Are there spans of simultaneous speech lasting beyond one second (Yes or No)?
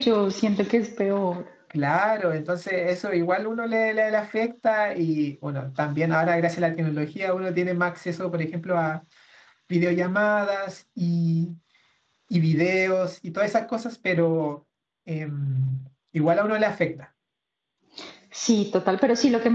No